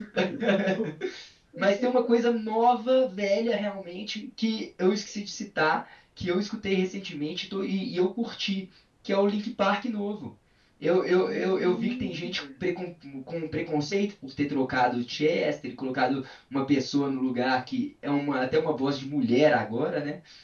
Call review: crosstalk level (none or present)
present